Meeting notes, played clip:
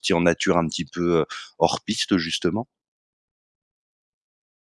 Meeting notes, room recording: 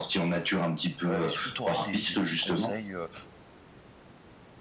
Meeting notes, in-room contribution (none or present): present